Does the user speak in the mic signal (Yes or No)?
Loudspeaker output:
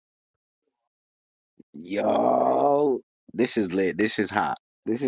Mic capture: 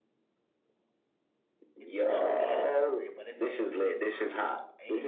Yes